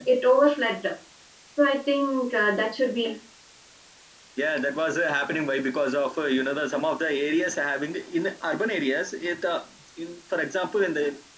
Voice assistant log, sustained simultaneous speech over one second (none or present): none